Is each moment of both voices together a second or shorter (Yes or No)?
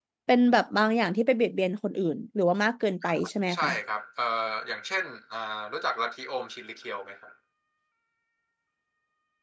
Yes